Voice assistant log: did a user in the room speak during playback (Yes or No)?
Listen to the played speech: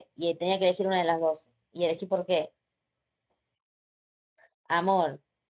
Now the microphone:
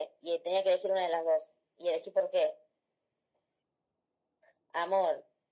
No